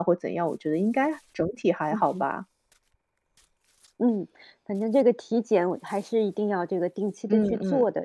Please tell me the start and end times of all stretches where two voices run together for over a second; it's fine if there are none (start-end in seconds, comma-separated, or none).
none